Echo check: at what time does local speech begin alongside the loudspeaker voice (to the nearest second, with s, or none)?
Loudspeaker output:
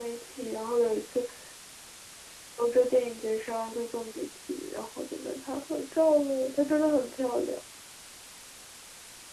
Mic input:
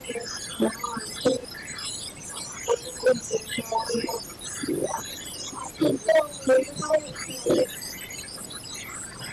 none